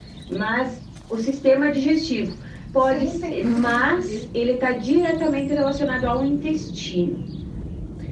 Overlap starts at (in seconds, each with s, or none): 2.8 s